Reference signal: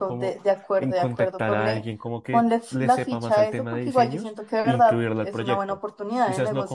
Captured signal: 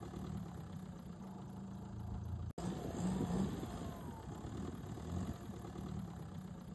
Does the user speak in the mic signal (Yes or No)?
No